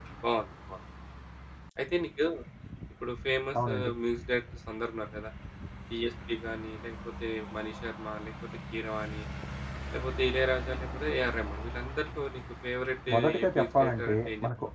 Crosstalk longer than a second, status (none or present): present